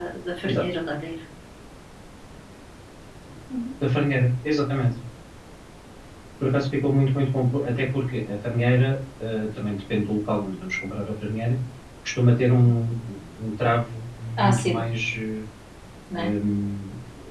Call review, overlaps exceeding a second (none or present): none